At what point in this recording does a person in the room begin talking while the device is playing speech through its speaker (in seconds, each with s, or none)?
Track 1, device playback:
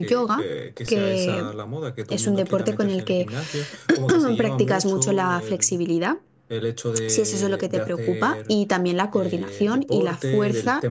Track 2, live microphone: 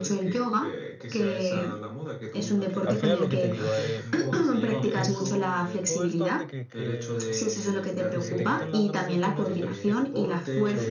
2.8 s